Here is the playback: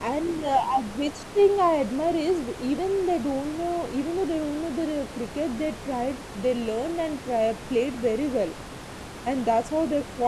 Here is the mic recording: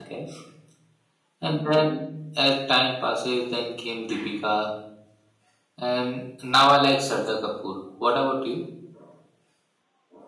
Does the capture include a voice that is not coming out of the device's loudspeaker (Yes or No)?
Yes